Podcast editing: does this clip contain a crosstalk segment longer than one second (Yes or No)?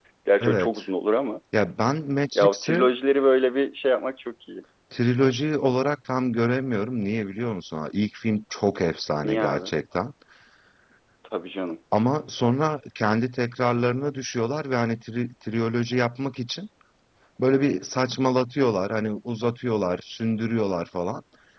No